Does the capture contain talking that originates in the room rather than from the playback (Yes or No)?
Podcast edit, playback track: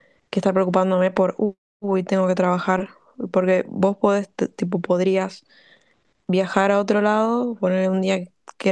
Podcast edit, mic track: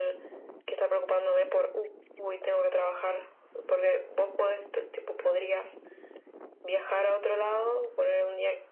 No